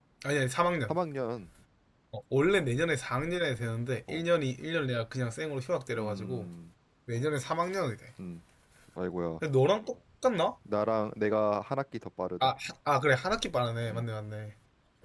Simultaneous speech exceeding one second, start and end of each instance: none

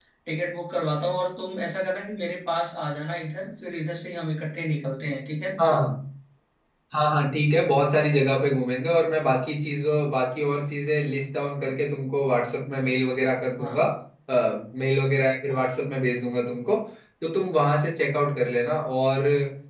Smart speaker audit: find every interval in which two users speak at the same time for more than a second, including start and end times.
none

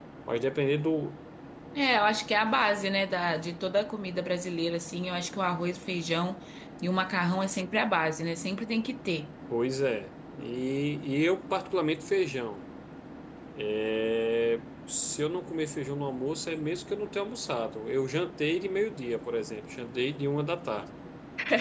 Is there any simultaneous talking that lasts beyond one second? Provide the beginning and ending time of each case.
none

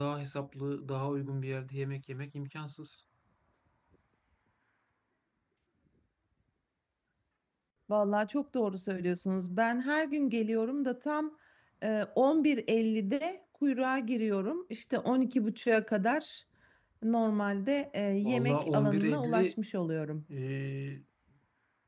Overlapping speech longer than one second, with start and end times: 18.2-19.6

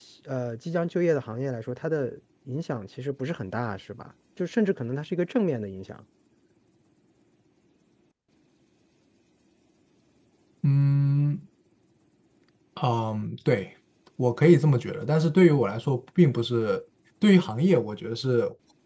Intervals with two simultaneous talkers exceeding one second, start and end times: none

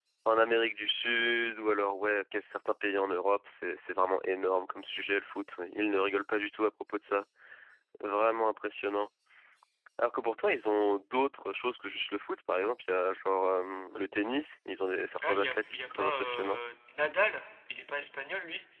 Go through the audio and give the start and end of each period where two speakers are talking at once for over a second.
15.2-16.6

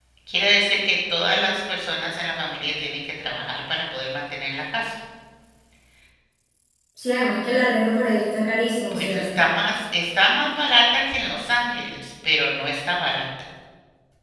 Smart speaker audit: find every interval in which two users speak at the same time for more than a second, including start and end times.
none

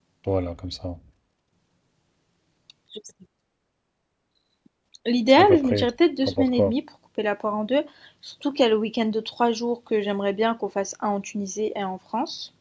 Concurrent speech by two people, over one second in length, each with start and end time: none

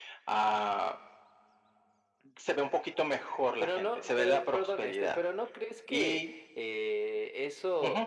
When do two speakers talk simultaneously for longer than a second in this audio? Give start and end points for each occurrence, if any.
3.6-5.2

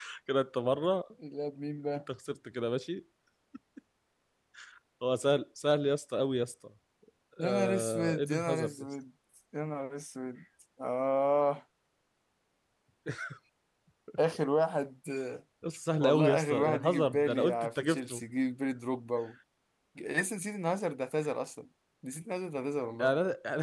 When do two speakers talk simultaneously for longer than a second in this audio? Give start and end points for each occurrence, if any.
7.4-8.9, 16.0-18.2

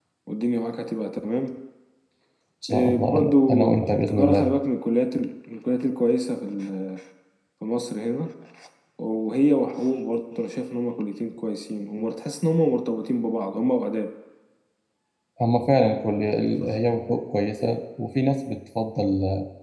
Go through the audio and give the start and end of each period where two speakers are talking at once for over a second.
2.7-4.5

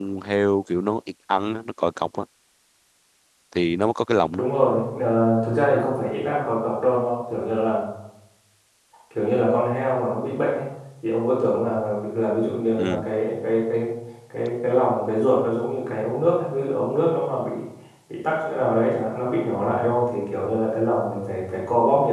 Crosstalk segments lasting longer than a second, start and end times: none

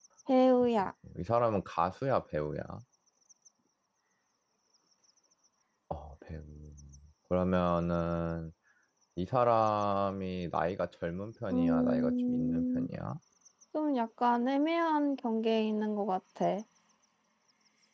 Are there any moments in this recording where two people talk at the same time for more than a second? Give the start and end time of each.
11.5-12.9

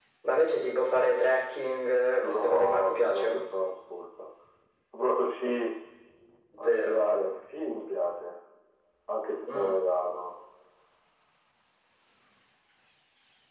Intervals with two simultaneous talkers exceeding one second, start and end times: 2.2-3.4

